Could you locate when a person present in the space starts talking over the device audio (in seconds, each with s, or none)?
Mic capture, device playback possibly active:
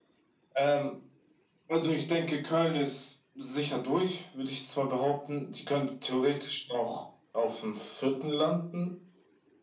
none